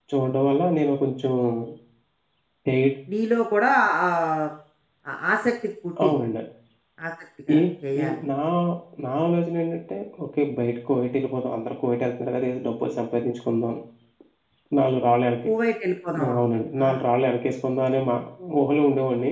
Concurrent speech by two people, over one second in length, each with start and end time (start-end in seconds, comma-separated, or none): none